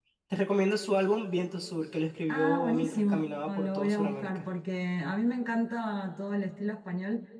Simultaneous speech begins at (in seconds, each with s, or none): 2.3 s